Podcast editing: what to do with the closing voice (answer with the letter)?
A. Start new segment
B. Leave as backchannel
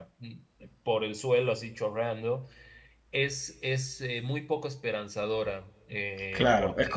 A